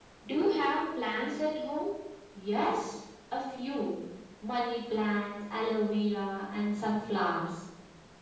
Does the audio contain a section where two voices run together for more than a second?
No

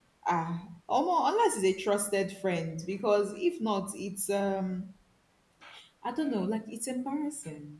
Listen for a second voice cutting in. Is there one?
No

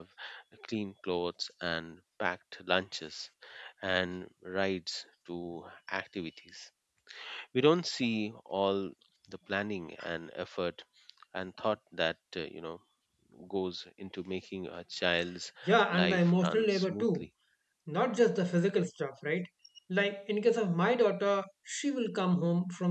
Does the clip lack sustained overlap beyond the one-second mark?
No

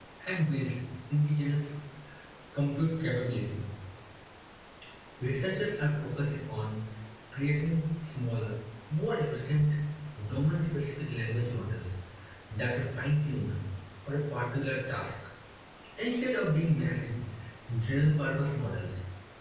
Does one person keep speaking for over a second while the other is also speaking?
No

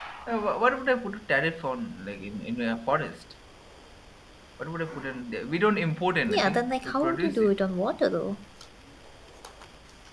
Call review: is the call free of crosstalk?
No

